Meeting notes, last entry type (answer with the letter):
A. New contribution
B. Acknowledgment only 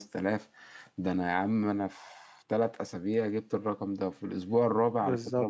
B